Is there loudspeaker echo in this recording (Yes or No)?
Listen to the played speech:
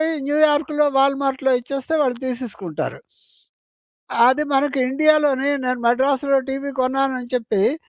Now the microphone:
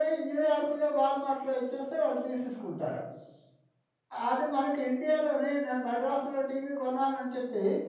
Yes